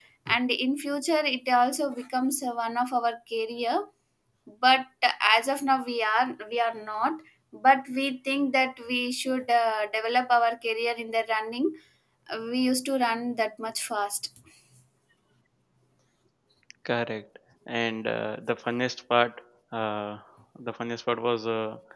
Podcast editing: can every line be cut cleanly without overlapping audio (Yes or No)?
Yes